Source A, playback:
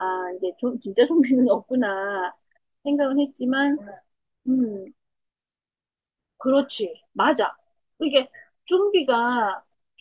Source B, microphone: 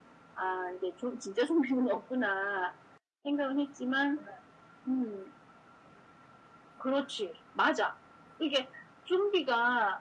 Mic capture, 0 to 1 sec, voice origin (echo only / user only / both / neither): echo only